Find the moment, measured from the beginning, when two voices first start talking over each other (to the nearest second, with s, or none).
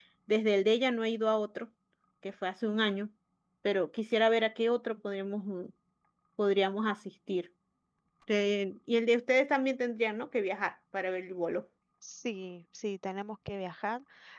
none